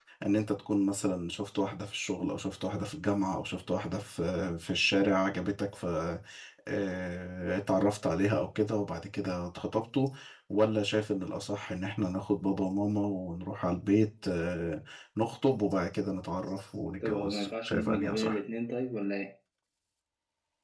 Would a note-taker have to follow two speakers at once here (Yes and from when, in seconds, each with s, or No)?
Yes, from 17.0 s